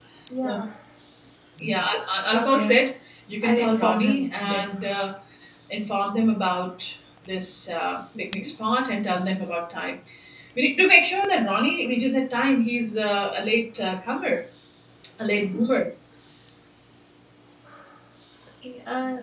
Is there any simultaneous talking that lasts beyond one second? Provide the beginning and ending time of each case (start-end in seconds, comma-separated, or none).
3.4-4.7